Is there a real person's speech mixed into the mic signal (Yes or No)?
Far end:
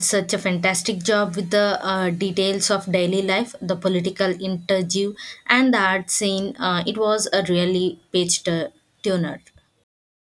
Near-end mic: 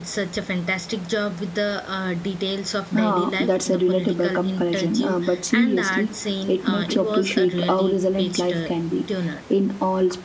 Yes